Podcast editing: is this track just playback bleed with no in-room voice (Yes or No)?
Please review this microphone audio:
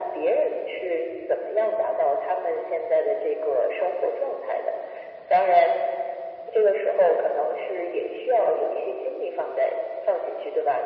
Yes